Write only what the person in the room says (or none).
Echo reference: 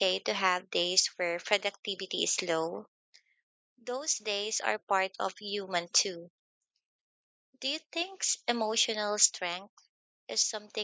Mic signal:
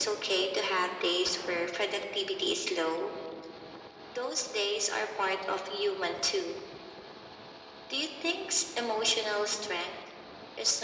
none